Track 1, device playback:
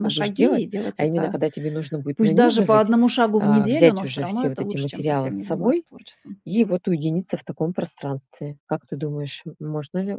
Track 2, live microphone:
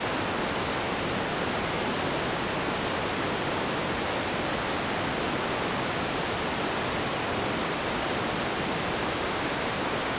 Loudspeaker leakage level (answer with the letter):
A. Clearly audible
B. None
B